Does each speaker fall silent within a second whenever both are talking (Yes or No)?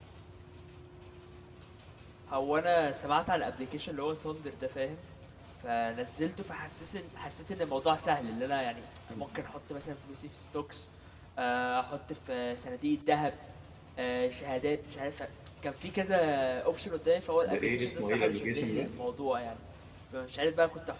No